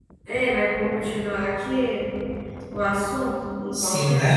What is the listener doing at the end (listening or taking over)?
taking over